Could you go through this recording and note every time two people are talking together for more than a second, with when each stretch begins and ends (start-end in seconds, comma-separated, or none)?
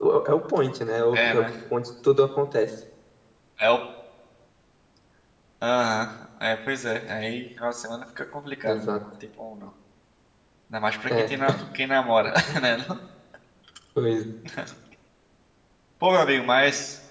none